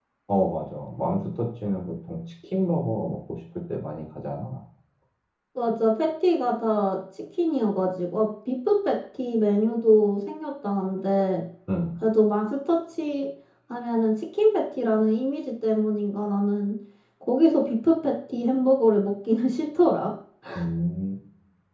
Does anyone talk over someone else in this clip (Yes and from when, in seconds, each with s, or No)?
No